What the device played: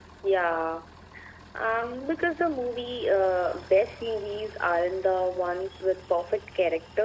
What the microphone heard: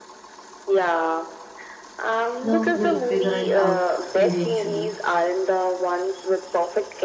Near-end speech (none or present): present